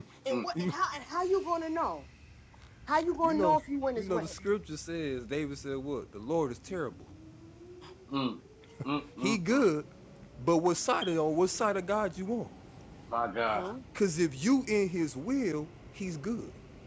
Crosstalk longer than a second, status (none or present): none